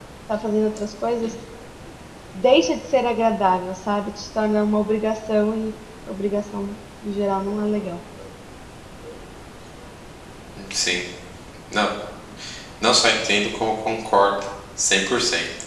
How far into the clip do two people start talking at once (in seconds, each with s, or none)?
none